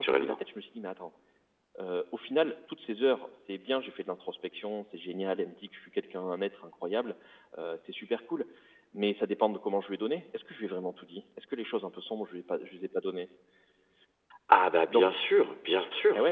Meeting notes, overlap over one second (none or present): none